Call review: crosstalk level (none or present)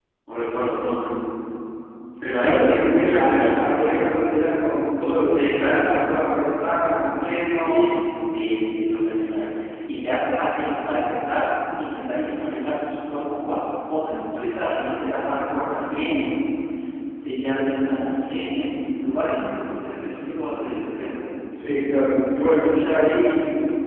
present